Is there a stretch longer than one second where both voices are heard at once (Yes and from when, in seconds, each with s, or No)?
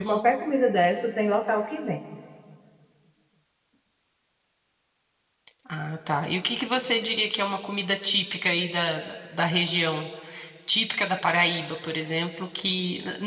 No